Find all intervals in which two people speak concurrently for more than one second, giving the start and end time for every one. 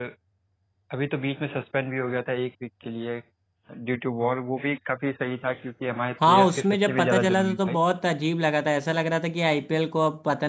6.3-7.8

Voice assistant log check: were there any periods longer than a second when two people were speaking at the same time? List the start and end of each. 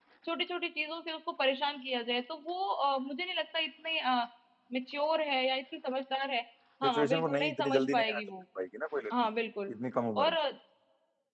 6.8-8.2

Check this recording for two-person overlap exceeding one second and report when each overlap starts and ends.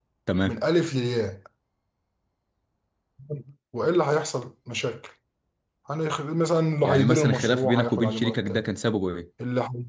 6.8-8.7

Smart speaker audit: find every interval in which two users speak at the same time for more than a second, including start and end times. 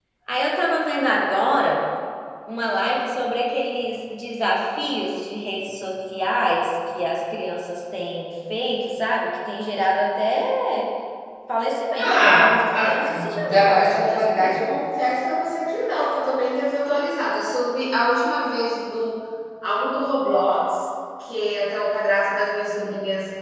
12.0-14.7

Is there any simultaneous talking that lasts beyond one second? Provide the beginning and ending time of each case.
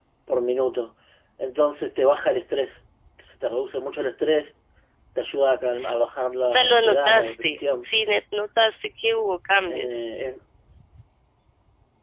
6.5-7.9

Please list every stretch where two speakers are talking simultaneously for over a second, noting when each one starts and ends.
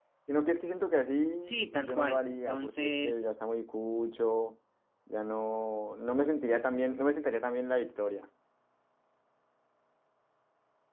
1.4-3.2

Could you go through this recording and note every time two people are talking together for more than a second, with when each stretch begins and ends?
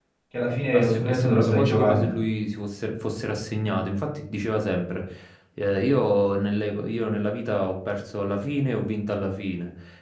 0.7-2.1

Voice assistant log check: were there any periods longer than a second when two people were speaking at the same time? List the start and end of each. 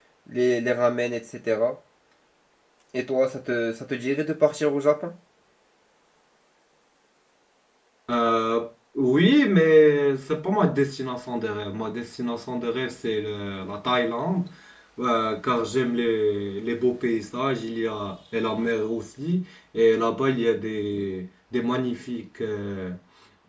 none

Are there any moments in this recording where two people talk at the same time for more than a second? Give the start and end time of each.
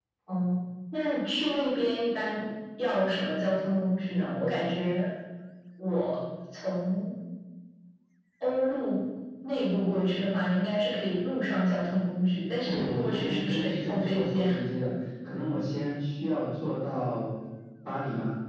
12.7-14.6

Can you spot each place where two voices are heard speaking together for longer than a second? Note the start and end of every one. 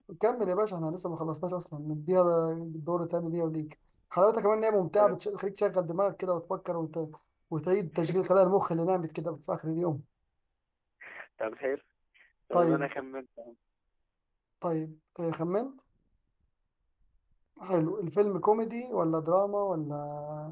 none

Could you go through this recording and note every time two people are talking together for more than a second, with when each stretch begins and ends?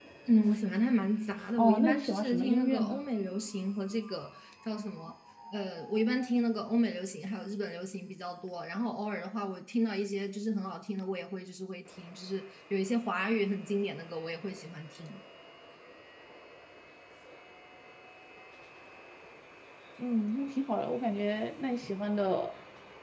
1.5-3.0

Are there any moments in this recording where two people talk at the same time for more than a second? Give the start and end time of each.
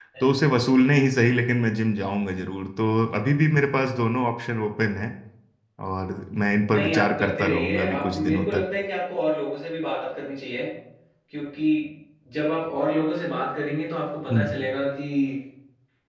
6.7-8.6

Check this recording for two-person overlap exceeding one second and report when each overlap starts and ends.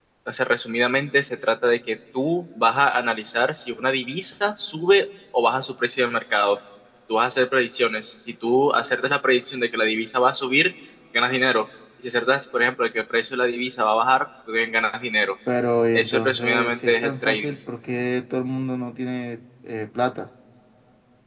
15.9-17.6

